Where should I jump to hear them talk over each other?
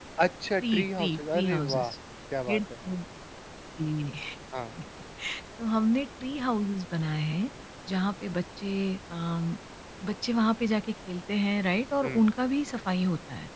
1 s

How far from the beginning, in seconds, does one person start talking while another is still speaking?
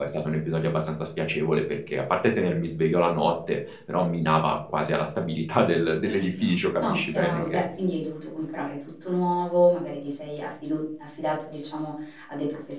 6 s

